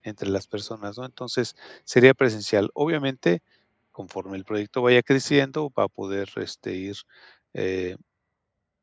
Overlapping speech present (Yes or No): No